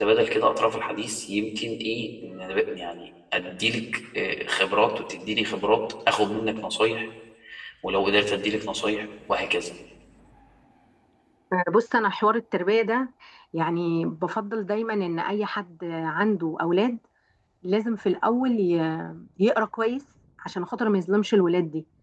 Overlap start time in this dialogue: none

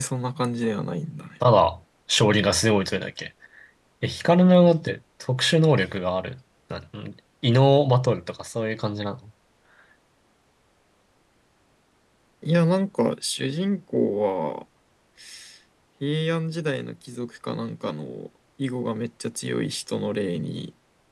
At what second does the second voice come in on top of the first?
none

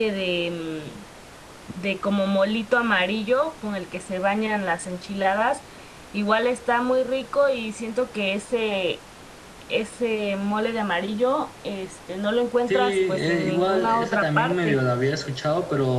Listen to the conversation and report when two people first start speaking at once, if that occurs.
13 s

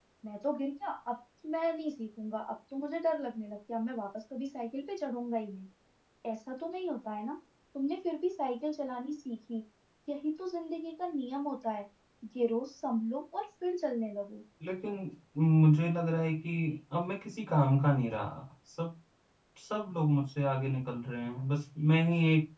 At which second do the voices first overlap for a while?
none

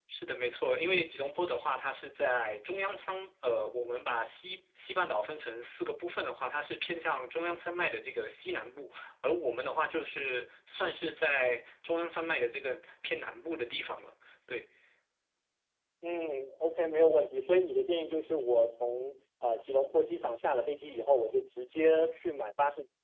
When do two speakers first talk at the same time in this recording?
none

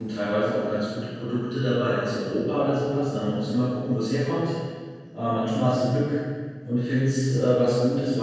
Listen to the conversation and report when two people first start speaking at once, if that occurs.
none

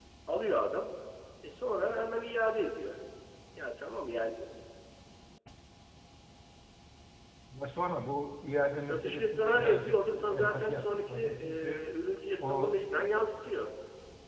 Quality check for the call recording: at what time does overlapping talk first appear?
9 s

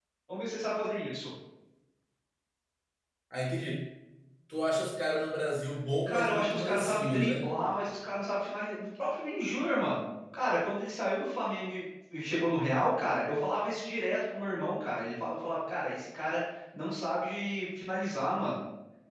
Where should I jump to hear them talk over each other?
6 s

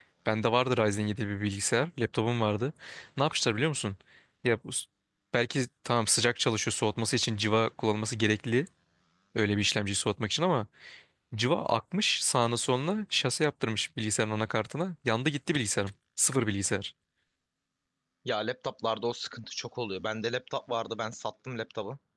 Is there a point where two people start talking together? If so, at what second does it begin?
none

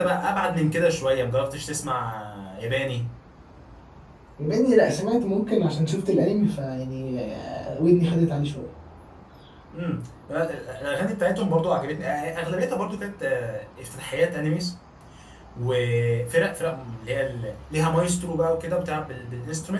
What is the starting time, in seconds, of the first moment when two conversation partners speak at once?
none

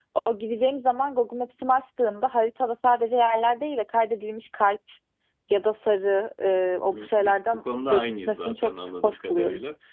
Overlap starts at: 7 s

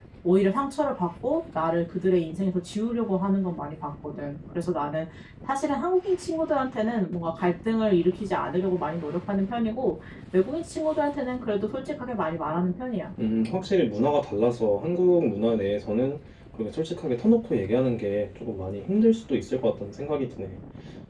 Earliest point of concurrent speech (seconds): none

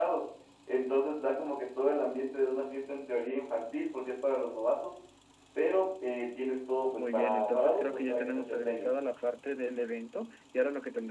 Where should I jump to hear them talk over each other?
7 s

